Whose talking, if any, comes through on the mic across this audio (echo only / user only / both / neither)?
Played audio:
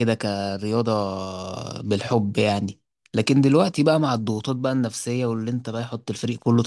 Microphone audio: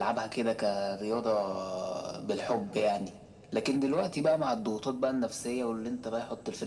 echo only